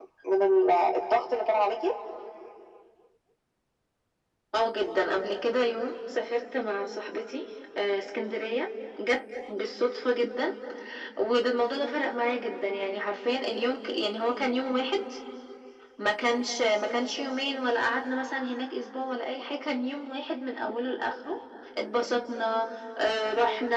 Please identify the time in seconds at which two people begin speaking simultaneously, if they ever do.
none

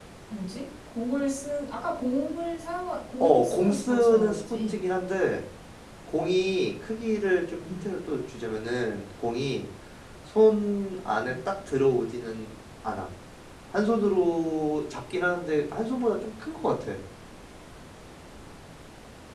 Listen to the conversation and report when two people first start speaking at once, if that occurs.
3.2 s

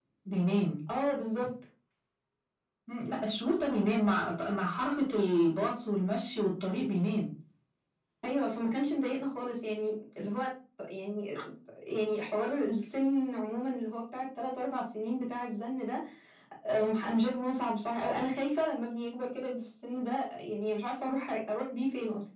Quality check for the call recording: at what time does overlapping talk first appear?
none

